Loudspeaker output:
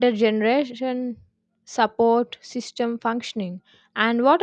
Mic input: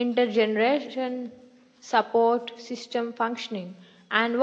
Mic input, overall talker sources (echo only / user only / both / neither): echo only